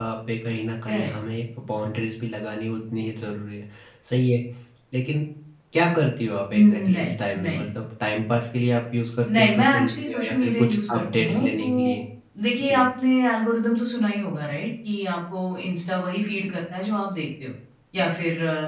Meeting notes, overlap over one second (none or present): present